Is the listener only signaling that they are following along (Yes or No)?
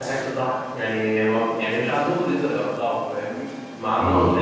Yes